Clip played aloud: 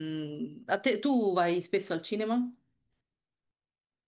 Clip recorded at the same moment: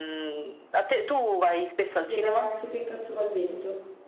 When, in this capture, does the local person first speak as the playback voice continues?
2.0 s

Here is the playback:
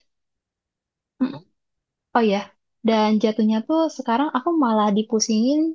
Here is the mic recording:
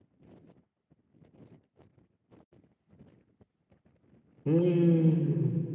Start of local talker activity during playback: 4.4 s

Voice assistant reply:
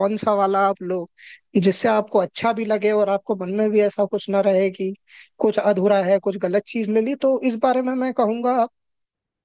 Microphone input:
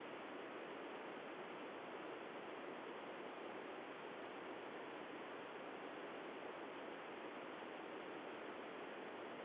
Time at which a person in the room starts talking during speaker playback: none

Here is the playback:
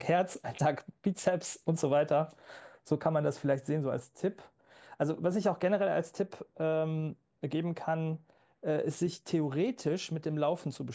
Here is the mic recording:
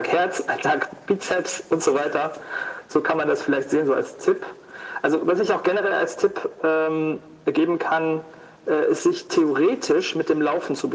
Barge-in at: none

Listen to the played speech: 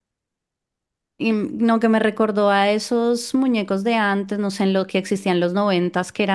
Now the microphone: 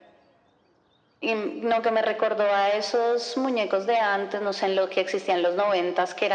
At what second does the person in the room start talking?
none

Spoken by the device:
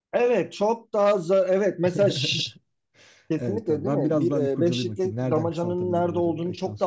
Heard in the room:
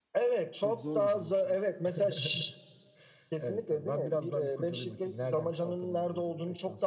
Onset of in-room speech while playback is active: 0.6 s

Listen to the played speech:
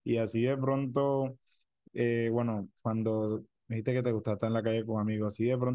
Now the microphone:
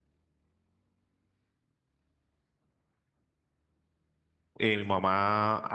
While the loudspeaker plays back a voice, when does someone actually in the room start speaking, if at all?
4.6 s

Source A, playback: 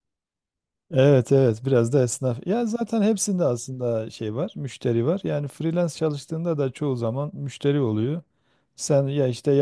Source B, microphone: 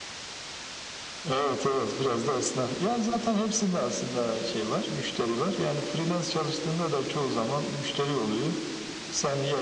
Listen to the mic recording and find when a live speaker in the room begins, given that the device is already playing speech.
none

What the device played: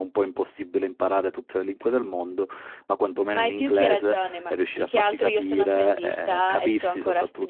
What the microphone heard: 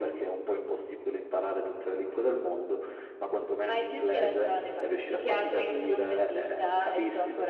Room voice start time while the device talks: none

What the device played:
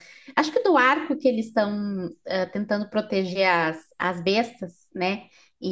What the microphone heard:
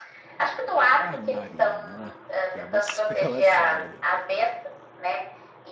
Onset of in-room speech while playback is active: 0.9 s

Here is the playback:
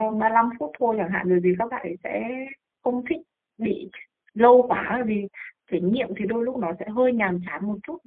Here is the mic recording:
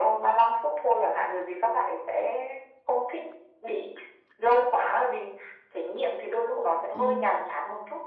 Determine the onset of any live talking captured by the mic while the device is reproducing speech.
6.9 s

